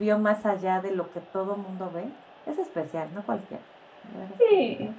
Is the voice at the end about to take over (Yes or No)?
Yes